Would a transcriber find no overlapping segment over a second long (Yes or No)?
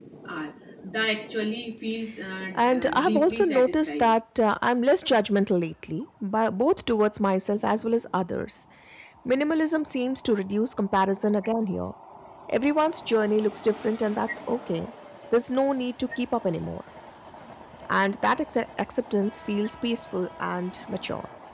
No